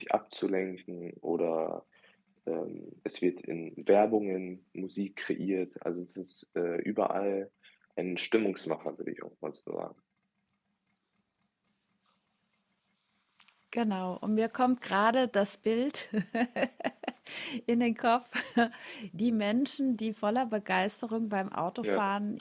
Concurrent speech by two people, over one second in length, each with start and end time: none

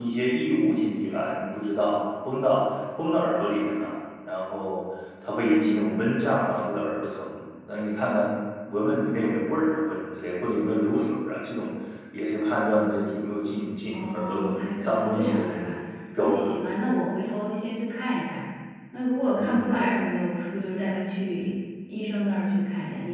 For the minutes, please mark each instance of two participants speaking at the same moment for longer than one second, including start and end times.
13.9-15.7

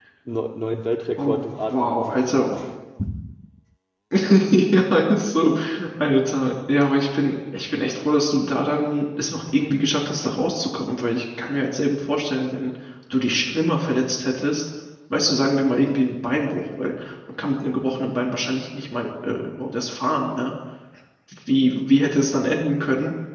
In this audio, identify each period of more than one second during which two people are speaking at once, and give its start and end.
1.2-2.4

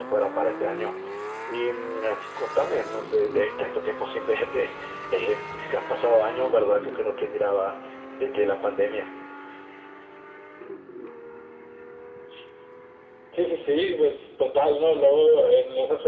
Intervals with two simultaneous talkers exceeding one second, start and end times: none

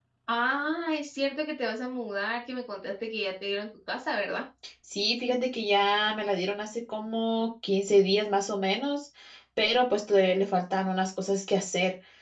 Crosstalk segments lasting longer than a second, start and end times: none

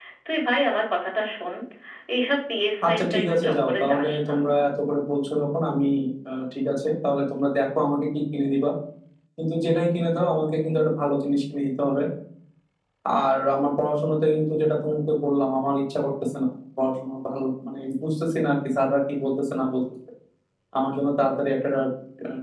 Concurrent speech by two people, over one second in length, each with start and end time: 2.9-4.3

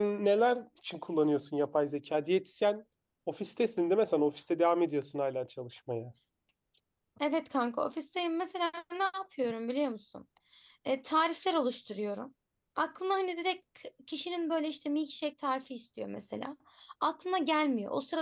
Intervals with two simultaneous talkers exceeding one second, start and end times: none

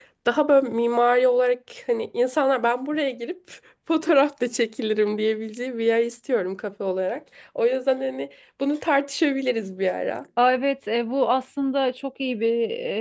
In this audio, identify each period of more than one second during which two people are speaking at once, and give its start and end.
none

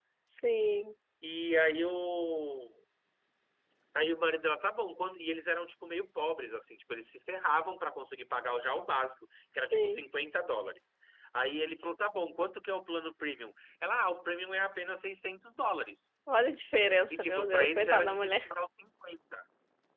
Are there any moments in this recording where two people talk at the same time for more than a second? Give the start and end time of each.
17.1-18.5

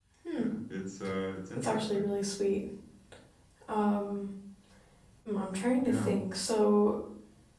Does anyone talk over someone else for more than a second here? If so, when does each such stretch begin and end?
none

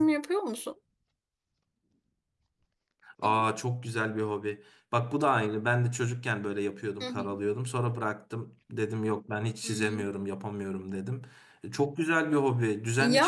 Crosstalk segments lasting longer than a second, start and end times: none

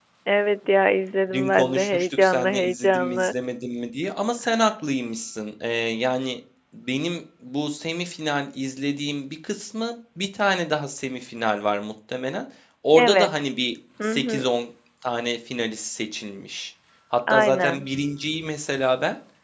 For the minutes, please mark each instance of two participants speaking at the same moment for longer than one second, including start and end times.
1.3-3.3

